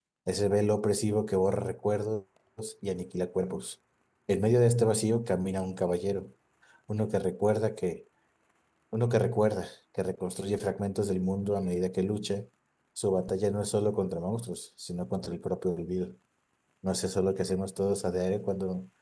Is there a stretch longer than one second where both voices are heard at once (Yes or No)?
No